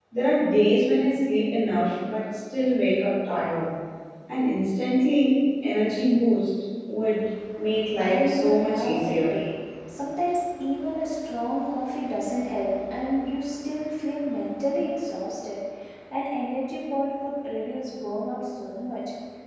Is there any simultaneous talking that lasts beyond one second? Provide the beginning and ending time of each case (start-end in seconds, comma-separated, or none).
8.0-9.3